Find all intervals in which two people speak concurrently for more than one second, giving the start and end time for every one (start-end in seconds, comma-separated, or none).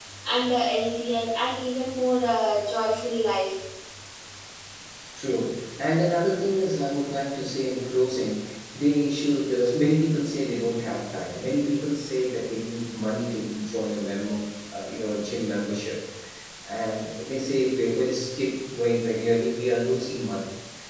none